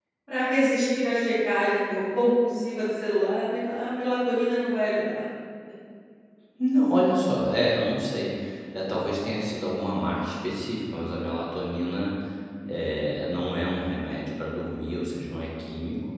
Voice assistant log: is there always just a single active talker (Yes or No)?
Yes